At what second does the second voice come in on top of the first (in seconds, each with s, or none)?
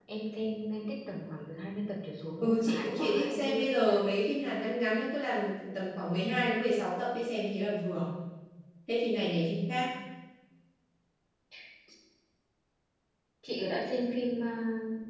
2.4 s